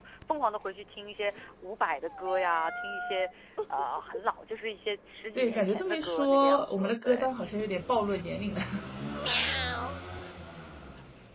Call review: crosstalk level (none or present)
present